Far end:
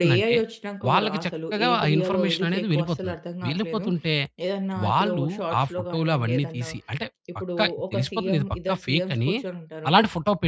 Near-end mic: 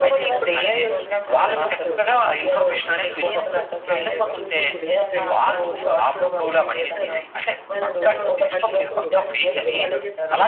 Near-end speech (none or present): present